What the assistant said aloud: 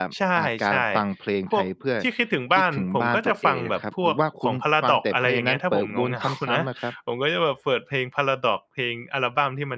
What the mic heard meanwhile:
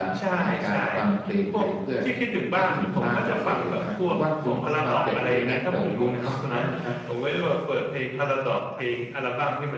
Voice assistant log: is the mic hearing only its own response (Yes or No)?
No